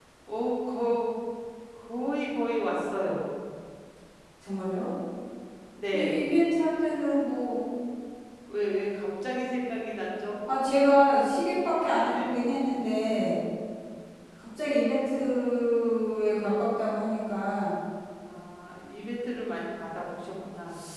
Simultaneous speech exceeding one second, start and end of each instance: none

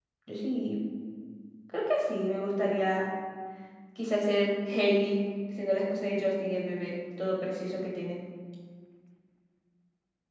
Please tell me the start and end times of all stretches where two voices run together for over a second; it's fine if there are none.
none

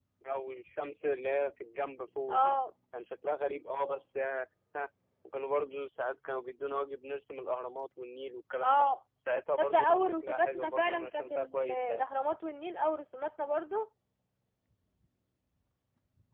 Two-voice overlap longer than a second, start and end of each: 9.6-12.0

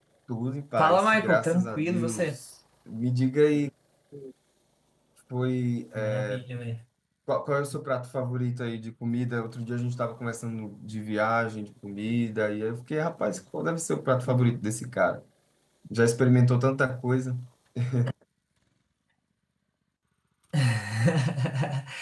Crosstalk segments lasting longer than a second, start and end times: 0.8-2.4

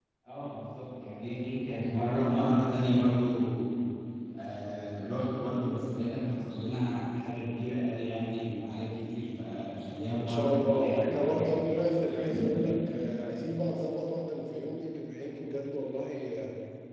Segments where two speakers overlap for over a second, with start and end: 10.2-11.6

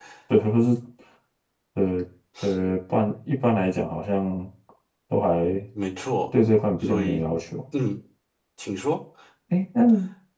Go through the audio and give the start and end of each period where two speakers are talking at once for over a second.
none

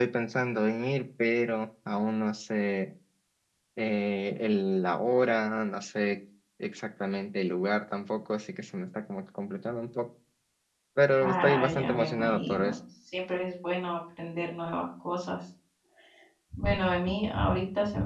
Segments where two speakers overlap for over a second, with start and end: 11.2-12.8

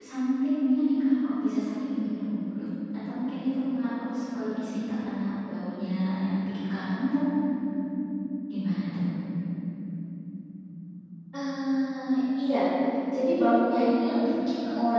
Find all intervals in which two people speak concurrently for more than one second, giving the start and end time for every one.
none

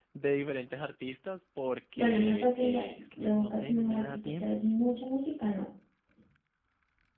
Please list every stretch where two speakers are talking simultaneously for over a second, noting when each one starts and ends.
2.0-4.7

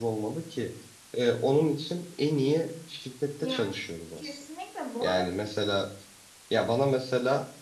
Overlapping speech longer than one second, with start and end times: none

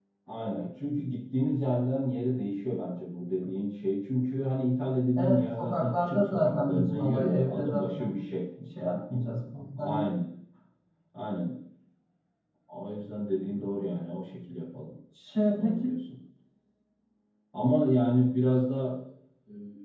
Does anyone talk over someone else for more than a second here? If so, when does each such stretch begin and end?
5.2-8.1

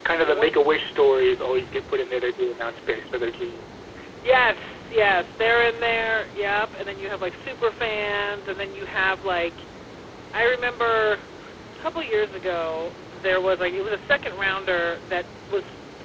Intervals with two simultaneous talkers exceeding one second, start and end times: none

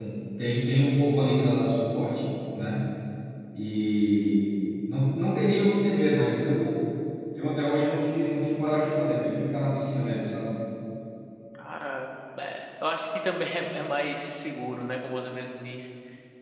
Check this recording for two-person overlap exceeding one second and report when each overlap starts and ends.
none

